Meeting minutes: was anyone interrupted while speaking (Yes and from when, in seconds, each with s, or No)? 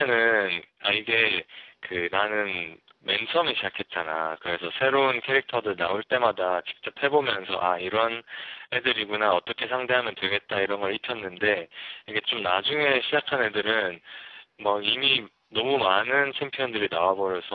No